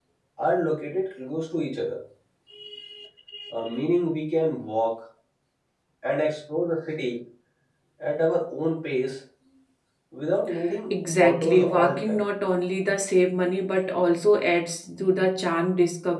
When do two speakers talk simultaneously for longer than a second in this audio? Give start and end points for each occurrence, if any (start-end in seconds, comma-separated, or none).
10.9-12.2